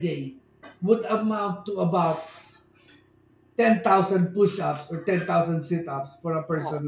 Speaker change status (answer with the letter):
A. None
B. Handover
A